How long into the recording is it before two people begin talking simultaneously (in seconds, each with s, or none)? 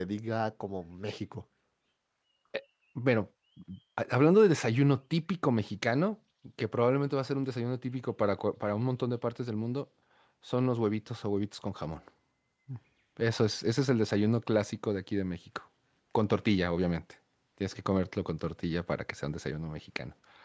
none